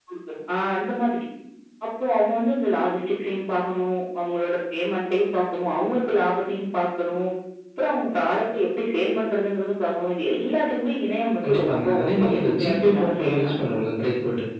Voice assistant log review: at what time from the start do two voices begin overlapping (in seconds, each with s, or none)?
11.4 s